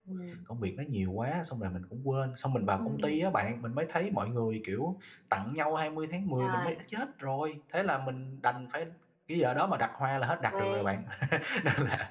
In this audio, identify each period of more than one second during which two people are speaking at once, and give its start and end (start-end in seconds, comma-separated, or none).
none